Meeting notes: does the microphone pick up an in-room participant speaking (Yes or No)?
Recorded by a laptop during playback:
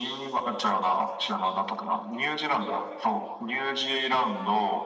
No